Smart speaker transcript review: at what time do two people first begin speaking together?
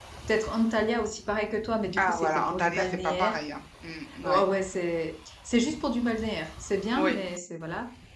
1.9 s

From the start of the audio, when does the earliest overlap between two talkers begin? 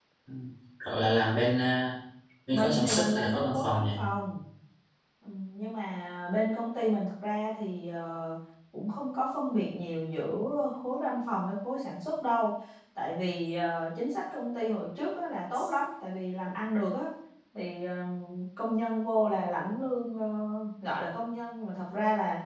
2.5 s

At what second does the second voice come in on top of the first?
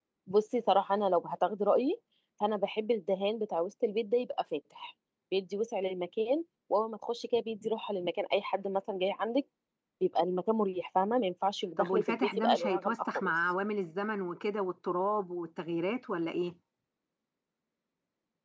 11.8 s

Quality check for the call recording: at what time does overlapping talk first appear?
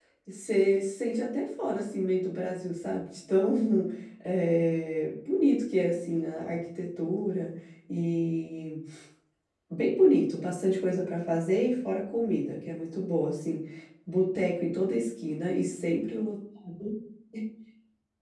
none

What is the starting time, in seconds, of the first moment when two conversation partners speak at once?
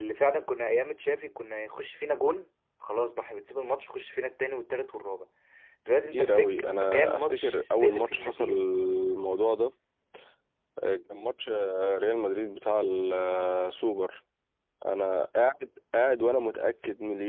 6.0 s

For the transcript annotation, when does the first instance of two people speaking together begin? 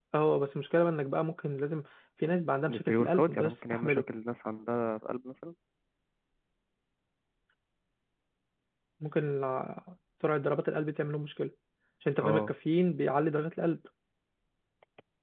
2.7 s

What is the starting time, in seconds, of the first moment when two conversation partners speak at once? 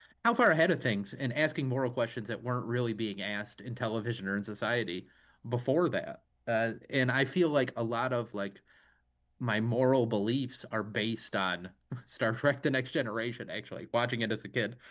none

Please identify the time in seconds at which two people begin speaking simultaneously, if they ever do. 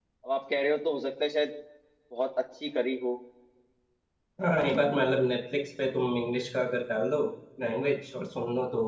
none

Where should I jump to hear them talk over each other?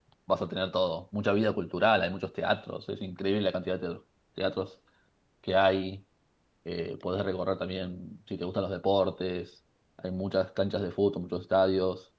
none

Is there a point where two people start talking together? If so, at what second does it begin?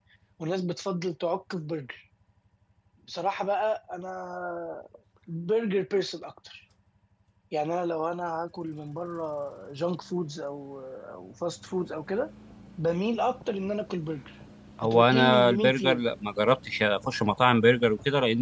14.8 s

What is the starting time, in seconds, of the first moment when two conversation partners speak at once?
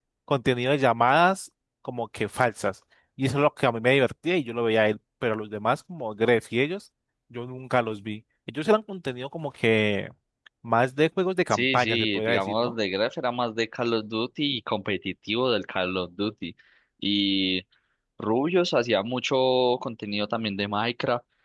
11.5 s

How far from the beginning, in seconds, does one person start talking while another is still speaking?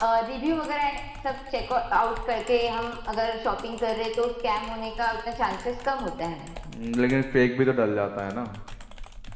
none

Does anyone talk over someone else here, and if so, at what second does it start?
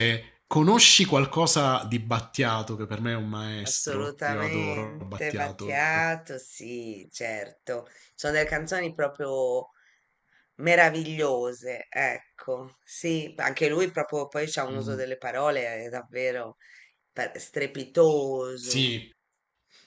3.6 s

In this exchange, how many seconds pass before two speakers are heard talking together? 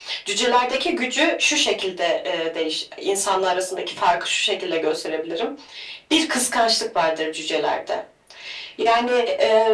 none

